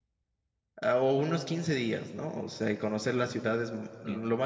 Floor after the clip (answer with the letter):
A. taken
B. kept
B